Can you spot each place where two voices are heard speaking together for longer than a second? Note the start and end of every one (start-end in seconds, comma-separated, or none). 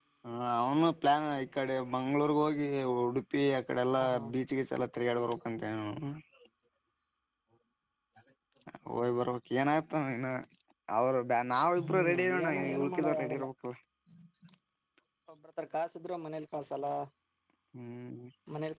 11.8-13.4